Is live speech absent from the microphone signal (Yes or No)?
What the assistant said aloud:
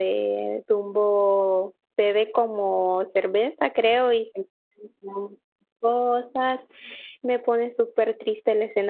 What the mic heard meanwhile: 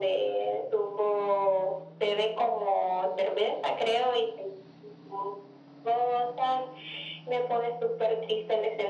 Yes